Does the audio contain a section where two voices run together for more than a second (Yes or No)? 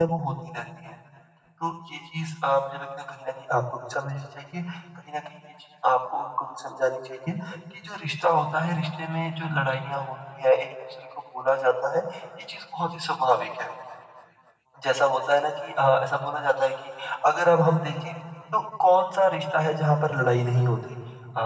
No